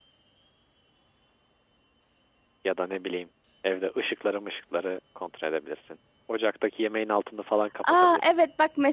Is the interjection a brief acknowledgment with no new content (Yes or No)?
No